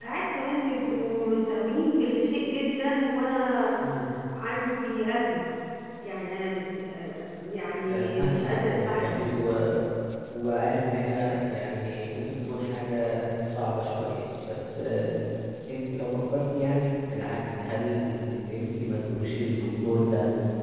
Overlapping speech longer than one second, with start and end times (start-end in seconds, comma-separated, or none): 7.8-9.2